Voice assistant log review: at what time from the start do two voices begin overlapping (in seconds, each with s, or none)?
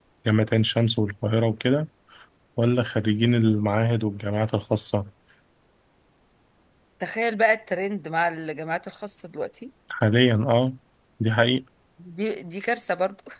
none